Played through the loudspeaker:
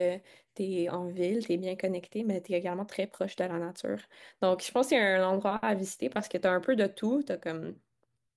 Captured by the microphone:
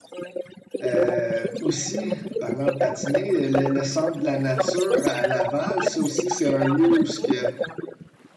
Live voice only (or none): euh, aussi, parlant de patiner, le, le centre de la nature à à Laval, ça aussi, c'est un lieu où ce que